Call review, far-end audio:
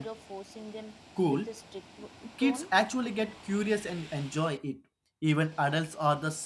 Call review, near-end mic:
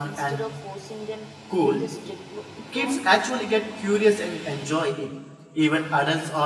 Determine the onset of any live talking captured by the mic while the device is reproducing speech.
none

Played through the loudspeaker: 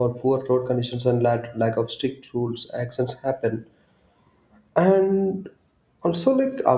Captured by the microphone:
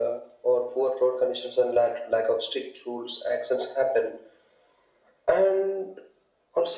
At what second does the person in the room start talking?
none

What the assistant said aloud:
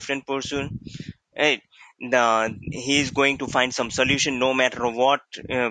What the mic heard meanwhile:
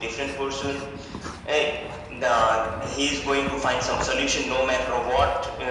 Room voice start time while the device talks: none

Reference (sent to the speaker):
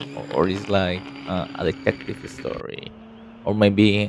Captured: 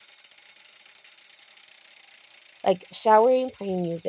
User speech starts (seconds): 3 s

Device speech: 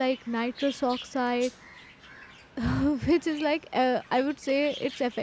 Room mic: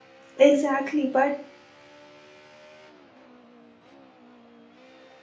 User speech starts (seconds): 0 s

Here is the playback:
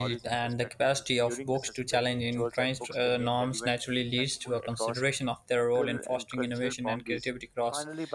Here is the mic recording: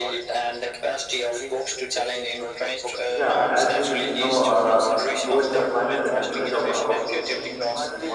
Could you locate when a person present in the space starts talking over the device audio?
3 s

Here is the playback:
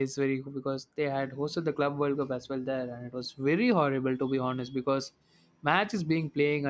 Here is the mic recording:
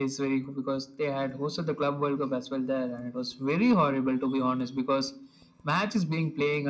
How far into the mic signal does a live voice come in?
none

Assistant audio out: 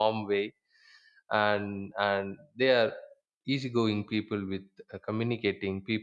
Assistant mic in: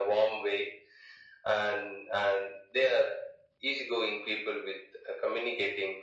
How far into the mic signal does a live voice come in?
none

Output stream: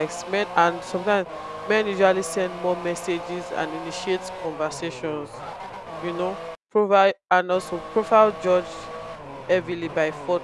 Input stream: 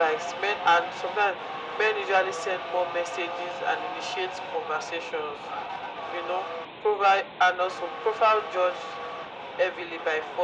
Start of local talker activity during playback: none

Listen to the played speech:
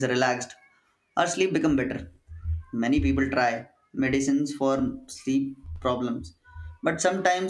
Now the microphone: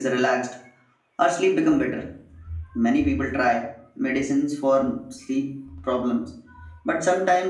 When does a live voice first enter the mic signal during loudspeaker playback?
none

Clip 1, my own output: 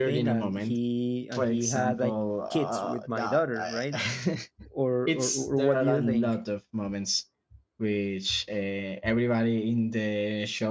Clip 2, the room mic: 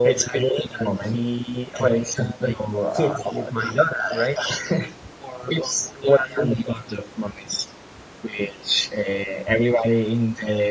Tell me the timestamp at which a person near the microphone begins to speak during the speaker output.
none

